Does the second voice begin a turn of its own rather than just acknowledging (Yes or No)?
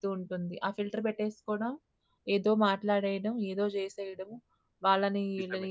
No